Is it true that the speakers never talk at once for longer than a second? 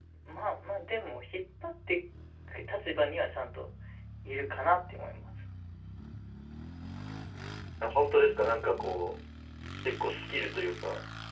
Yes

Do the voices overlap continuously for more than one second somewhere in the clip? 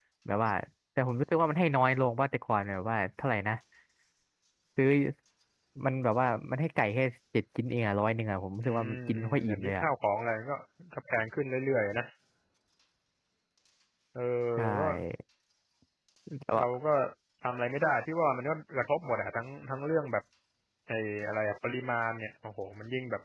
Yes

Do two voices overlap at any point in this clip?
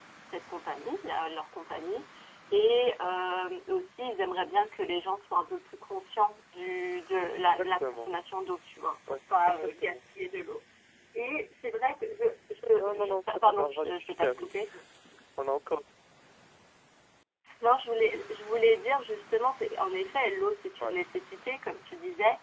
Yes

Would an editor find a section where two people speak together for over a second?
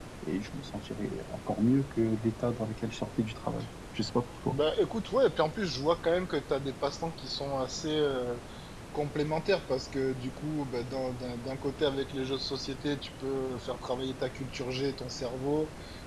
No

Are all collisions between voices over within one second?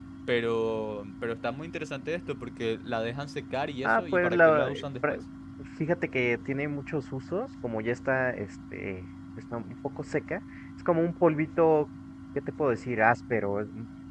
No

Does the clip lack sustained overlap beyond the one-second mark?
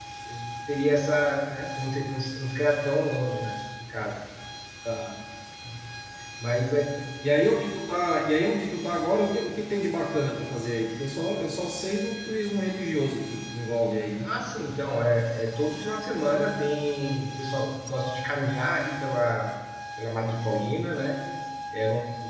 Yes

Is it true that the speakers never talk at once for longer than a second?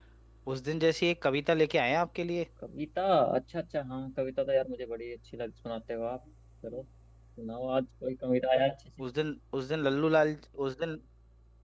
Yes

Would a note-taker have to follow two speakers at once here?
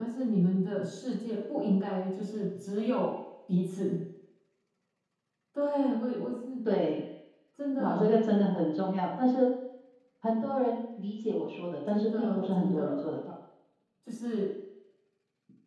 Yes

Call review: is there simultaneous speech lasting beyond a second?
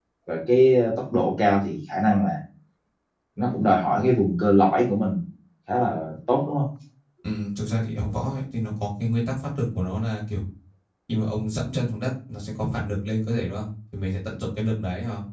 No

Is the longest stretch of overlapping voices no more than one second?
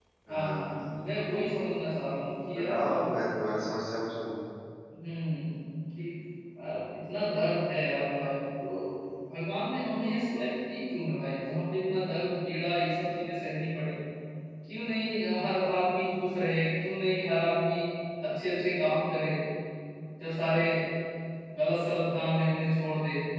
Yes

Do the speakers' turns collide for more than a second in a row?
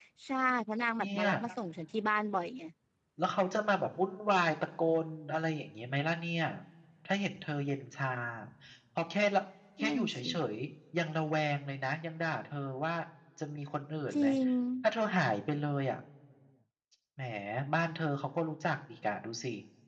No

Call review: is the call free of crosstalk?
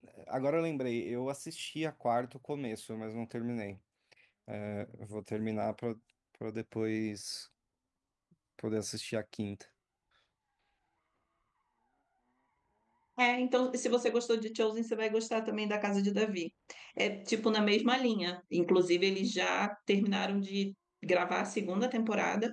Yes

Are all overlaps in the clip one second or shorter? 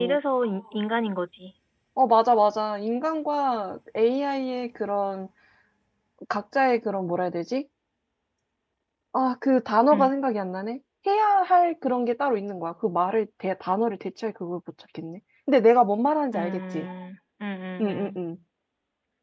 Yes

